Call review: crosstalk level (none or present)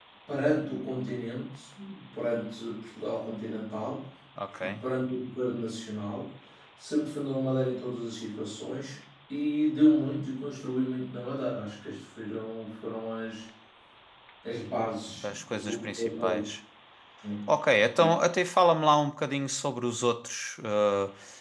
present